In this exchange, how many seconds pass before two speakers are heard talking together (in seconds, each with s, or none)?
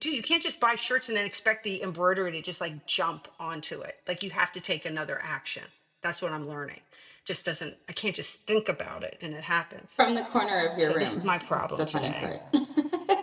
10.8 s